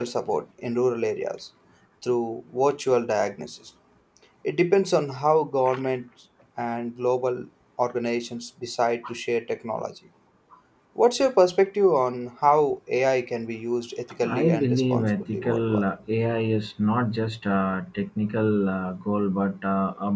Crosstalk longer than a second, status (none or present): present